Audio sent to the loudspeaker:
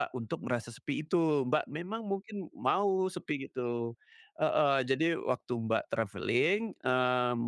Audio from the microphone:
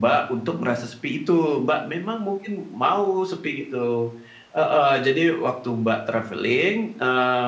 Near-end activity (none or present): none